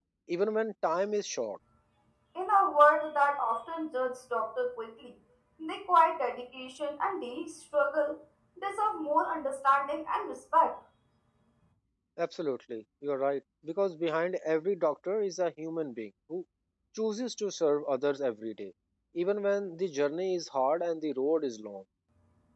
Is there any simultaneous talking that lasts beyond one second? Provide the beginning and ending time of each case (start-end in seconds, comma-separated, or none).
none